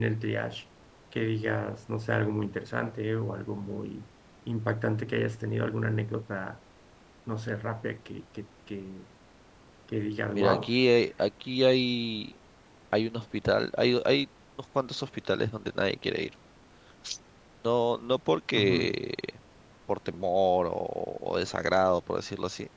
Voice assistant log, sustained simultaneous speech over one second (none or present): none